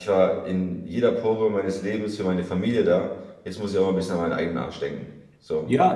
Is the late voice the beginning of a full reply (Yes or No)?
Yes